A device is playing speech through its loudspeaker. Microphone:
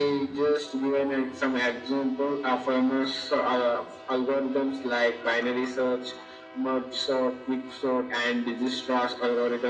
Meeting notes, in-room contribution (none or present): none